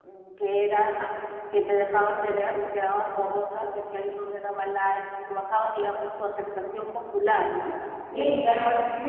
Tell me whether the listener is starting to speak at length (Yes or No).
No